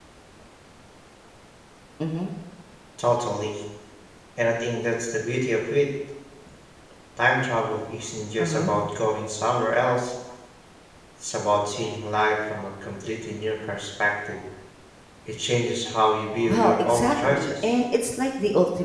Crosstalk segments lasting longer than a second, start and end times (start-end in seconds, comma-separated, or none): 16.5-17.7